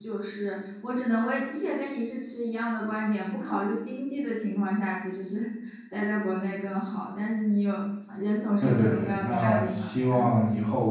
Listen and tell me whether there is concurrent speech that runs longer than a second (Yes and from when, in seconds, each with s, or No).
Yes, from 8.6 s